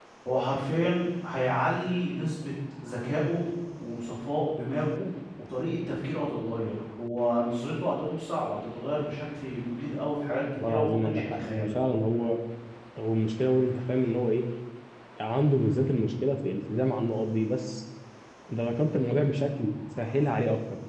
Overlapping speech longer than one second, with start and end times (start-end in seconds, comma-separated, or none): 10.5-11.8